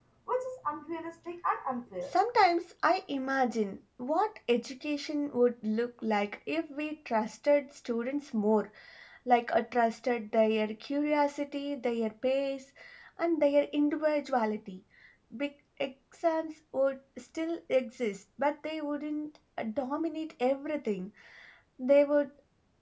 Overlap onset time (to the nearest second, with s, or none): none